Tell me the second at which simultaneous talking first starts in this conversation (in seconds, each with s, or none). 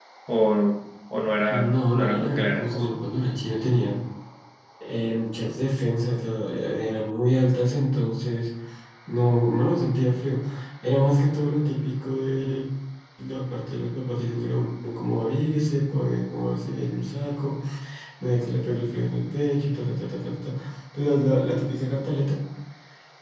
1.5 s